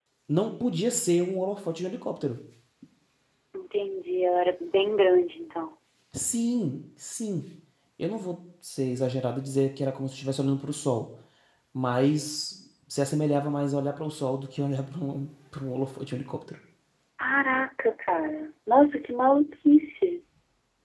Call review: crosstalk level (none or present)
none